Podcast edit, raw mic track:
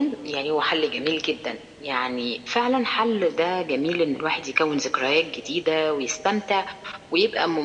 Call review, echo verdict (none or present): present